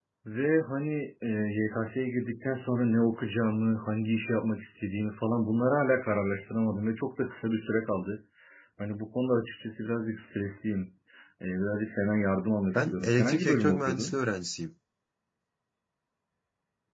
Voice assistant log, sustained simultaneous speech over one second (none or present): present